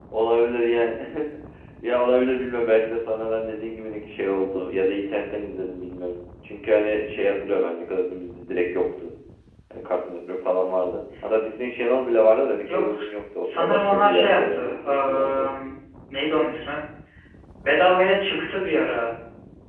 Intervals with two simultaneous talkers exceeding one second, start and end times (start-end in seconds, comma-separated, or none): 13.4-15.5